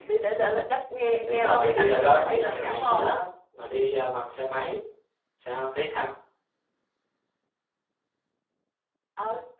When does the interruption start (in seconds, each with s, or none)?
1.3 s